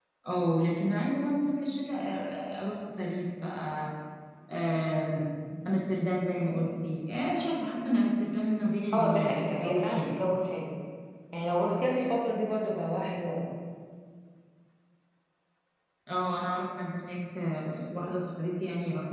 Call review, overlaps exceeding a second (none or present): present